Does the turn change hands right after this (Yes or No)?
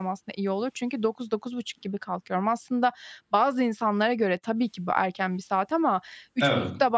No